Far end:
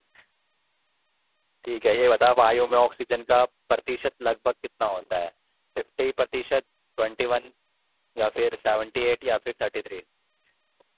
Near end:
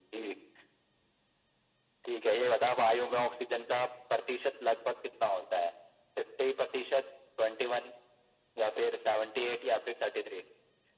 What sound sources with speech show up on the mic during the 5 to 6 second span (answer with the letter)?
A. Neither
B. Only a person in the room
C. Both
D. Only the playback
D